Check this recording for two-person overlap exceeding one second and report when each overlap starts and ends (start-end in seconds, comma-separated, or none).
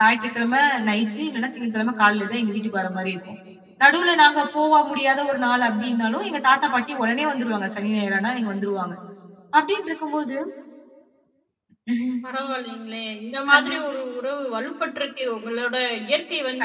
none